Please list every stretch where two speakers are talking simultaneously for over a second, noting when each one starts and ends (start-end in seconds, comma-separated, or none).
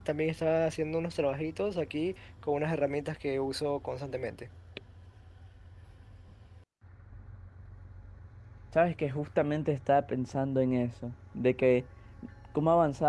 none